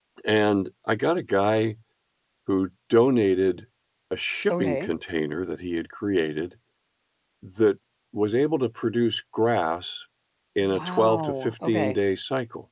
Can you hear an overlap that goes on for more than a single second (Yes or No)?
Yes